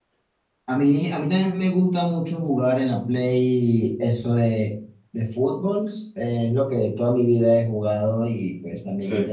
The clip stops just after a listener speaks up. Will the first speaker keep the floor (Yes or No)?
Yes